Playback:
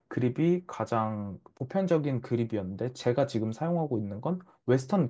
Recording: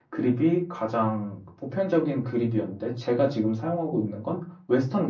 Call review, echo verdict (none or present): present